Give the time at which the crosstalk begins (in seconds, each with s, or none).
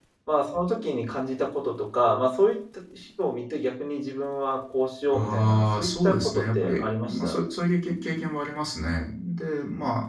5.1 s